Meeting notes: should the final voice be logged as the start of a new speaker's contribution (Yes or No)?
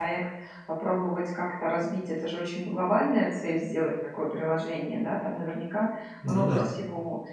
No